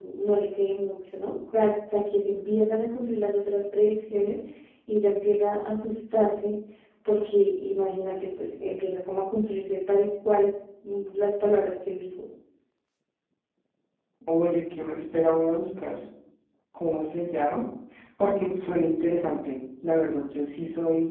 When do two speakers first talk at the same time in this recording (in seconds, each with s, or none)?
none